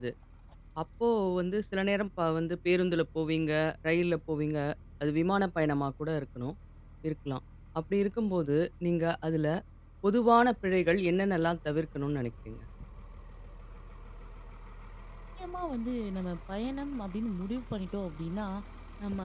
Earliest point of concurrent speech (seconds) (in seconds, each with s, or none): none